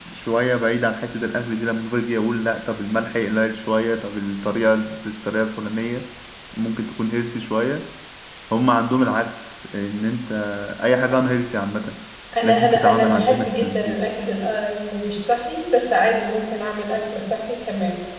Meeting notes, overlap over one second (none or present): present